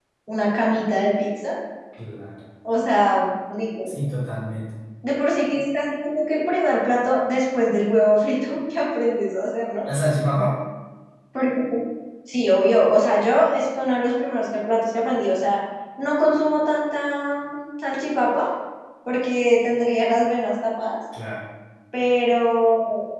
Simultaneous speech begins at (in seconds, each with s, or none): none